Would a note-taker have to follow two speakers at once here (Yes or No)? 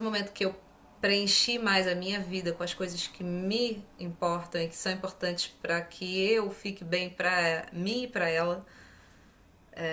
No